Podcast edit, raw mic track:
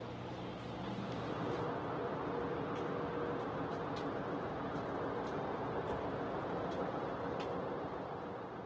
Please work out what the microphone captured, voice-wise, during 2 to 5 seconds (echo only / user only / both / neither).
neither